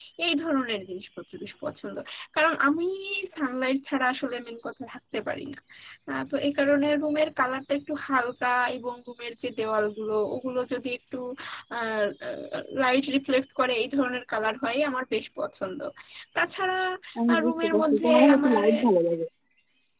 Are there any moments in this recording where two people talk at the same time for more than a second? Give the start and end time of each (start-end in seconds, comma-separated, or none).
17.3-18.6